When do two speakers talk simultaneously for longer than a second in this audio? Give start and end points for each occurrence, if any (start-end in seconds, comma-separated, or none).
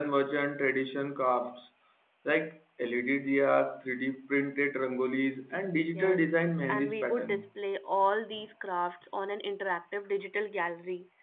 5.9-7.5